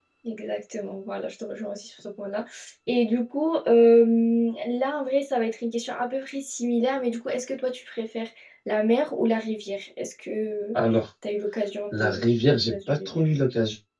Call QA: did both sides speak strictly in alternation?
No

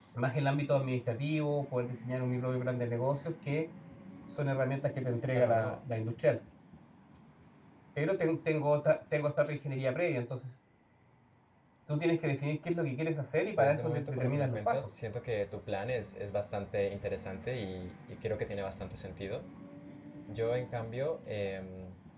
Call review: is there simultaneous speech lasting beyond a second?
Yes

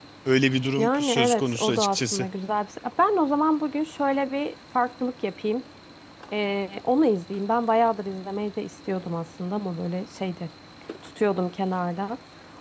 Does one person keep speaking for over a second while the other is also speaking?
Yes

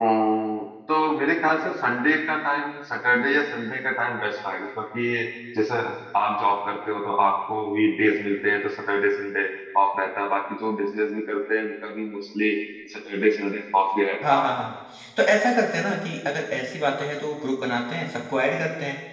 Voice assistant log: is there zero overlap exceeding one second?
Yes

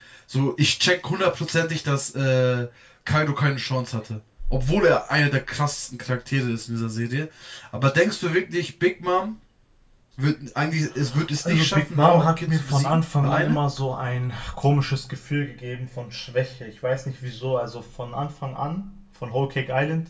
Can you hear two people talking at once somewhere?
Yes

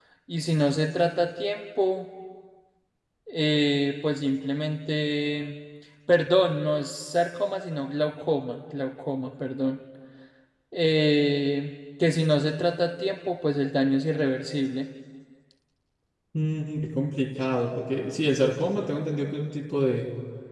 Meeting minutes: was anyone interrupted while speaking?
No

